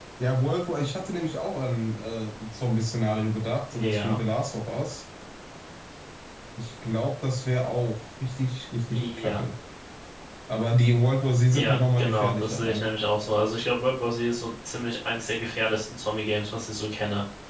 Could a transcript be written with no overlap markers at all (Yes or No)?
No